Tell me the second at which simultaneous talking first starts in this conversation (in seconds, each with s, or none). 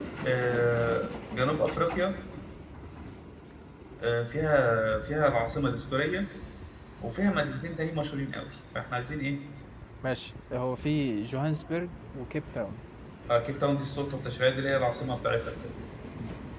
none